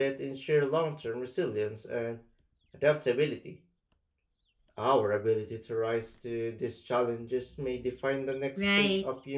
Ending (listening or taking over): taking over